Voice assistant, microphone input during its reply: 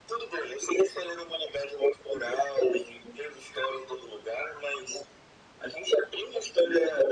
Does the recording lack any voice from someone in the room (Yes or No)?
Yes